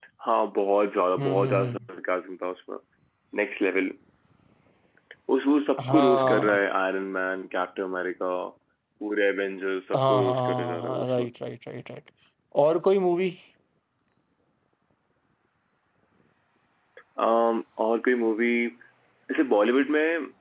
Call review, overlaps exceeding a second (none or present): present